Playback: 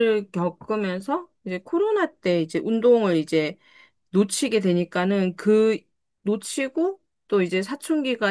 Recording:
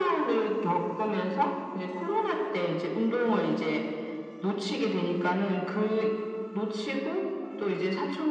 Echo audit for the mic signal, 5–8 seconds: echo only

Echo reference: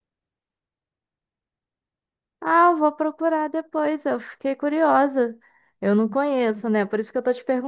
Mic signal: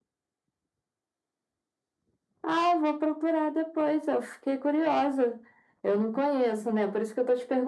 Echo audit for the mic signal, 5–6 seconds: echo only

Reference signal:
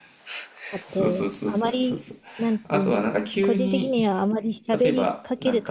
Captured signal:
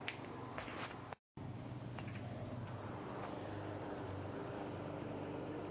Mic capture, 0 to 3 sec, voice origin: neither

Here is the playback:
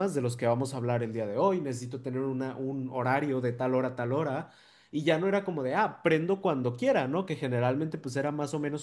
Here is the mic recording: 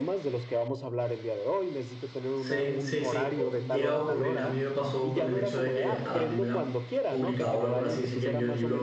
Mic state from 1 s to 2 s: echo only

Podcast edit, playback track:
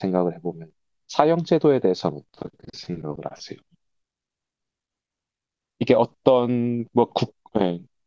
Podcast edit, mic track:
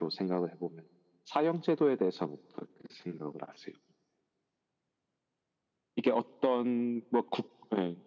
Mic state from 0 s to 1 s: echo only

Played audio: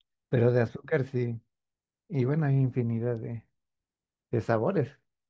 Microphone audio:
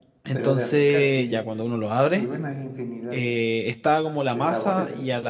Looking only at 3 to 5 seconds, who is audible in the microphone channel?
both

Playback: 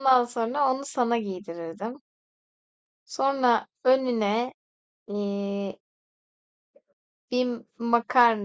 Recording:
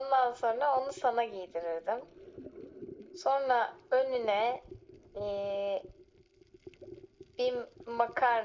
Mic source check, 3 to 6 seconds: echo only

